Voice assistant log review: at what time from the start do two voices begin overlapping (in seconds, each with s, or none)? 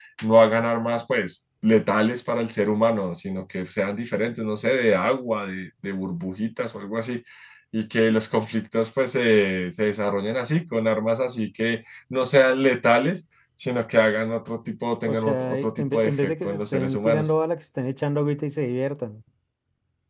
15.1 s